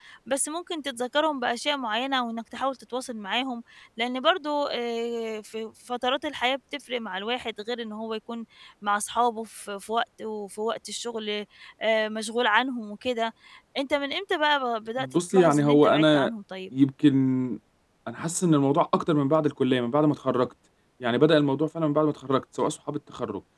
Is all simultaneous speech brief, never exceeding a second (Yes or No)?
No